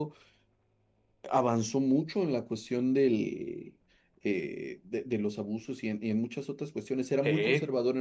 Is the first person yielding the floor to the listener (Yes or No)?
No